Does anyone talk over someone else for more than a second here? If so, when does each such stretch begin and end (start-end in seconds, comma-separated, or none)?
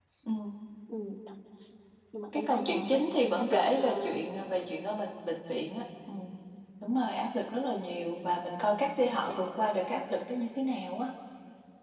2.3-4.1